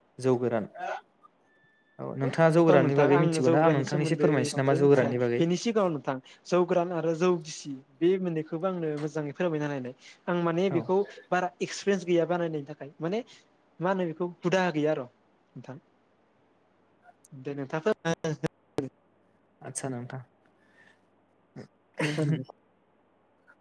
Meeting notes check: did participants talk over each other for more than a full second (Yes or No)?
Yes